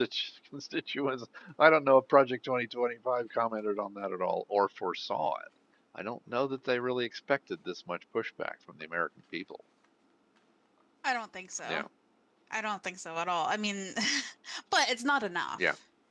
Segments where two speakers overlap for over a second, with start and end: none

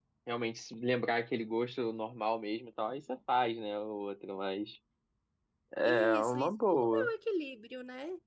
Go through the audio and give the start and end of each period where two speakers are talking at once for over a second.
5.8-7.1

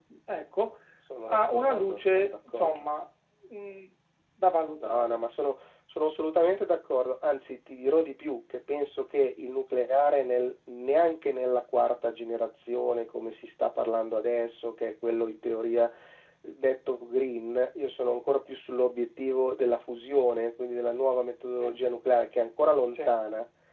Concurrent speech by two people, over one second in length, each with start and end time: 1.3-2.9

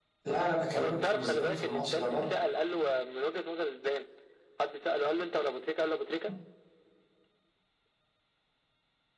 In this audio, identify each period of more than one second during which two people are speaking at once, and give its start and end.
0.8-2.4

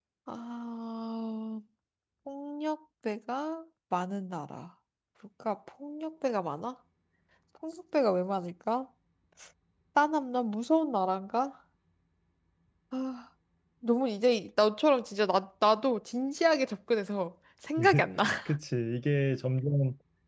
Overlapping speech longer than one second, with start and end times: none

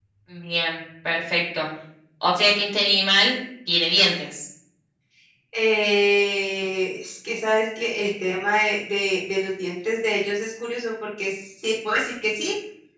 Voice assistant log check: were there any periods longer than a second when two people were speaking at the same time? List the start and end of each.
none

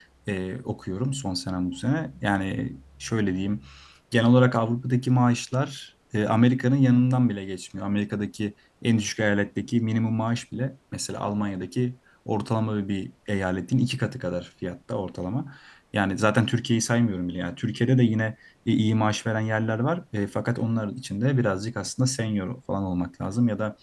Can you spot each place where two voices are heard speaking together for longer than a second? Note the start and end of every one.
none

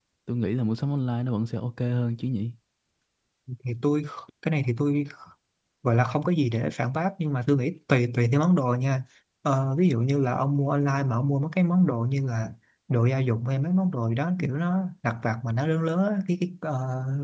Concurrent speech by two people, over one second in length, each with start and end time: none

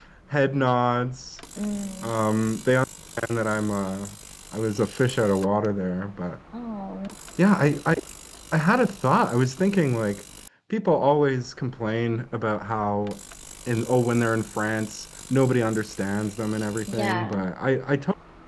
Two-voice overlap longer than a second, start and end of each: none

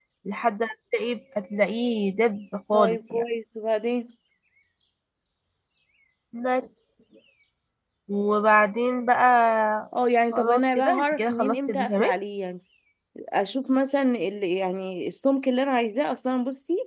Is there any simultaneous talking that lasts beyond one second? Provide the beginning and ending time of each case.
10.3-12.1

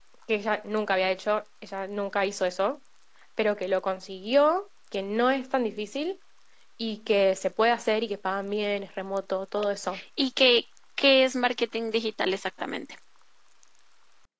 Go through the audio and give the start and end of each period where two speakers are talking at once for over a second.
none

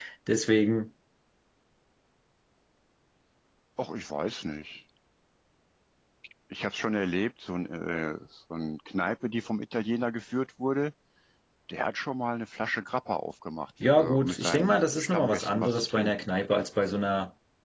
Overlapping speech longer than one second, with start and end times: 13.9-16.1

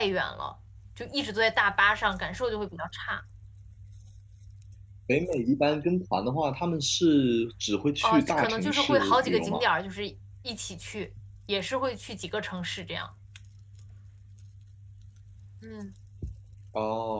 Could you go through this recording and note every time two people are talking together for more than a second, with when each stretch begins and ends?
8.0-9.6

